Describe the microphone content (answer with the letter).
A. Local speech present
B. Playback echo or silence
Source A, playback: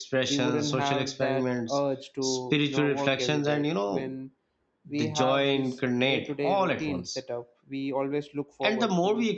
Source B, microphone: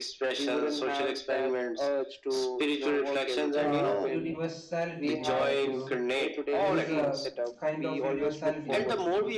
A